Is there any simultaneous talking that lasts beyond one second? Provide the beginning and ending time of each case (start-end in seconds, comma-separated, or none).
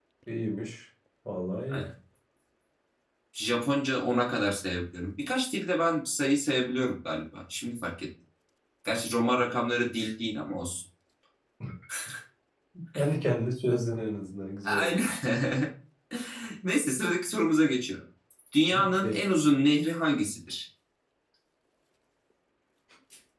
none